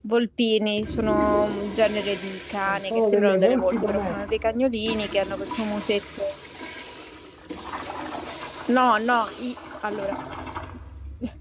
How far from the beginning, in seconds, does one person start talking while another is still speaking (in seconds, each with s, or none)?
2.7 s